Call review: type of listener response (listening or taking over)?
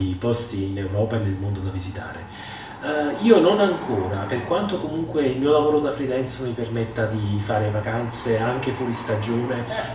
listening